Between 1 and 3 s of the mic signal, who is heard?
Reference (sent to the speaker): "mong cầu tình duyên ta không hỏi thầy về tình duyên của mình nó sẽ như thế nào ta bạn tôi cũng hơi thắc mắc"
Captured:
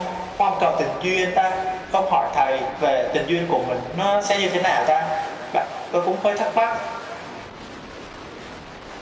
echo only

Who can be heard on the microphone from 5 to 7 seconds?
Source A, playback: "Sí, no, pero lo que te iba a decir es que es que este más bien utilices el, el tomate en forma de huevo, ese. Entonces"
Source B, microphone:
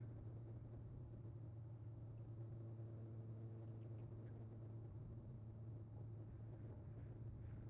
neither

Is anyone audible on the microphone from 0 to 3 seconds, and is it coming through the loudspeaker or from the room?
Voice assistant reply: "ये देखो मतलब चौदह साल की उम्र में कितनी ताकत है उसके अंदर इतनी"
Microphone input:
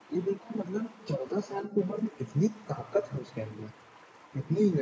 echo only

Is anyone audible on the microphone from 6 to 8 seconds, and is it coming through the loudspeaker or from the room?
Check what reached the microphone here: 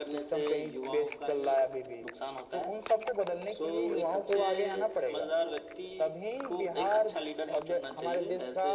echo only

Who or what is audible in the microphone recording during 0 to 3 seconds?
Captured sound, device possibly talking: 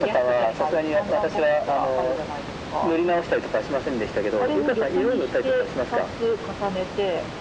echo only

